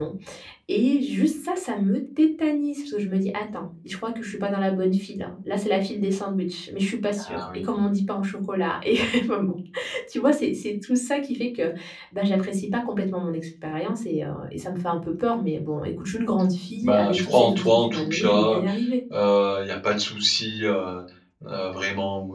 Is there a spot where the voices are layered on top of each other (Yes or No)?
Yes